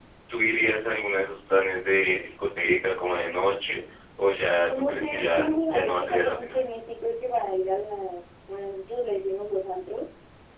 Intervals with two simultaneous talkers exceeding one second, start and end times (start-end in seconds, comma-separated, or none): 4.7-6.6